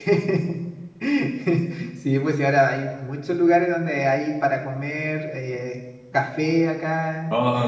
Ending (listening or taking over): listening